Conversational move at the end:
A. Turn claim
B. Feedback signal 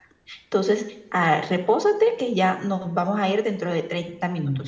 A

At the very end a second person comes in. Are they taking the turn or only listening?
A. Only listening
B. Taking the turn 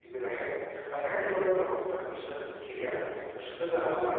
A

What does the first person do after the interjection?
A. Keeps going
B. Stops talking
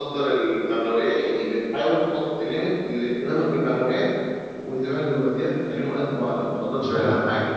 B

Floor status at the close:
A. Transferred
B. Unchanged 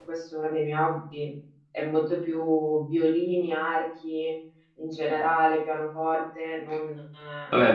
A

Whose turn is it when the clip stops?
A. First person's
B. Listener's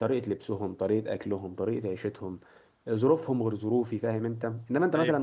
A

